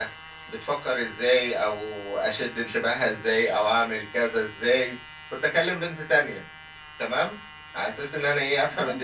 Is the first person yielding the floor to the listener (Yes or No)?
No